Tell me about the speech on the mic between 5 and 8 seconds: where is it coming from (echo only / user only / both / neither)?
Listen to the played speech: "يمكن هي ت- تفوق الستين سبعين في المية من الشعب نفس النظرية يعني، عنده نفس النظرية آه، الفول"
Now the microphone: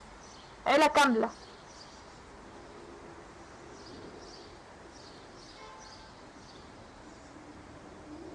neither